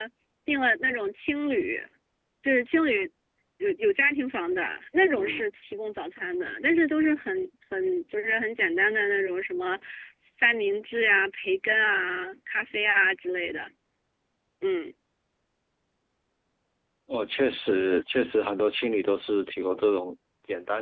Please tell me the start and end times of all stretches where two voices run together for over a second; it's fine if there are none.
none

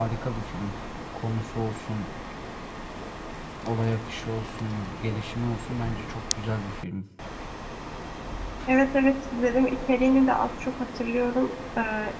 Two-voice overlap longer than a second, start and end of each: none

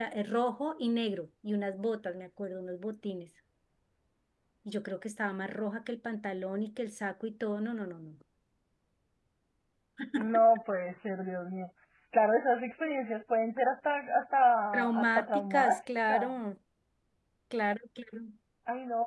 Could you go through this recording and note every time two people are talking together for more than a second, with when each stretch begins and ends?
14.7-16.3

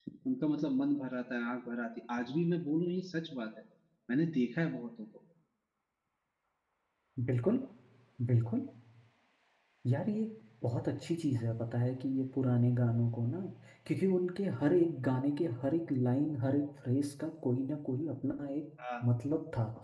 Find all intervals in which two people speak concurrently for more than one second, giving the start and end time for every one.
none

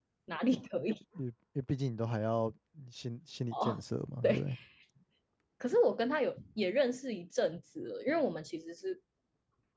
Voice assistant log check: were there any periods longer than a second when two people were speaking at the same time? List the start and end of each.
none

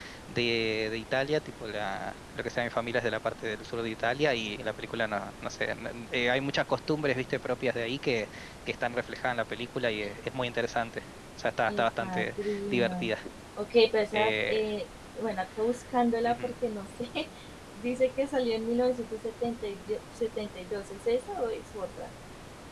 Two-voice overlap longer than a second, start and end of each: 11.7-13.1

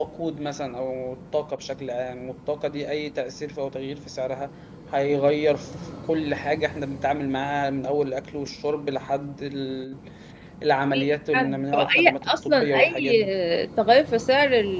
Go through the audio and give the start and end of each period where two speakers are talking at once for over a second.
11.3-13.3

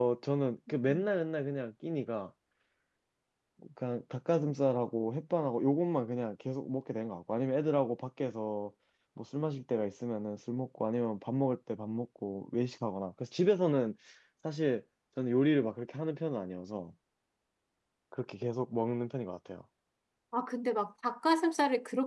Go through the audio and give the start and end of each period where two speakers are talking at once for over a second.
none

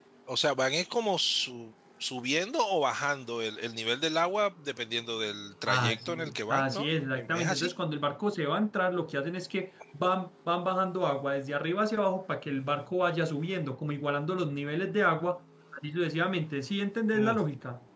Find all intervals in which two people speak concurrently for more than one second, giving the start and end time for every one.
5.7-7.7

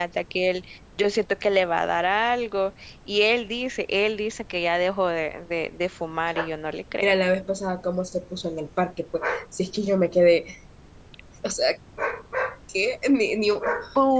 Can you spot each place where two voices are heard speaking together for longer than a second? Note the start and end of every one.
none

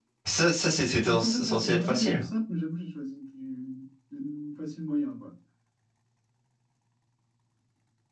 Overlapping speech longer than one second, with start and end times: 1.0-2.2

